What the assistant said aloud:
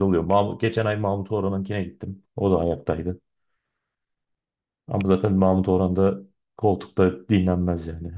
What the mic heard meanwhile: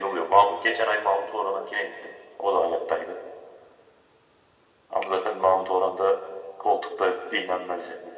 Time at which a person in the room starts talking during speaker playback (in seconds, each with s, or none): none